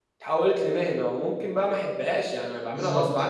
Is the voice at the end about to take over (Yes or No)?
Yes